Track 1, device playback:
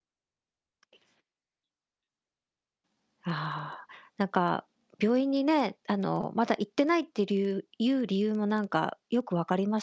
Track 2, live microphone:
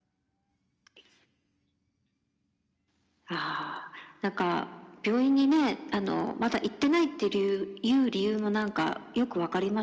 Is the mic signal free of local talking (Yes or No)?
Yes